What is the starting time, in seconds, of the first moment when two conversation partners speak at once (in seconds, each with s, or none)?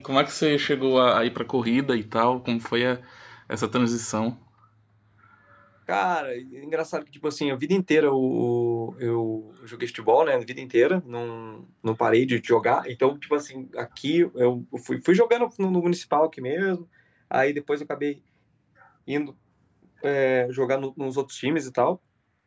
none